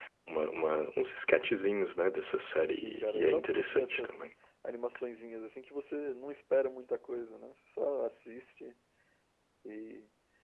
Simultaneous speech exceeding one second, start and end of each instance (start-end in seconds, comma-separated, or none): 2.7-4.3